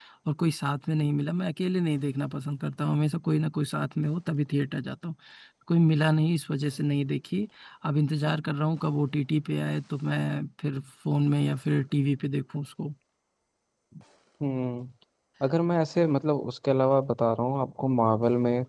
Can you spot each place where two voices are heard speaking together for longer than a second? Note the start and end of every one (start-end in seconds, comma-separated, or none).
none